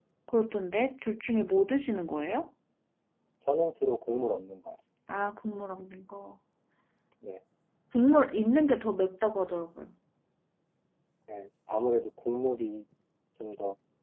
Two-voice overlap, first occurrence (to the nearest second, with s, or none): none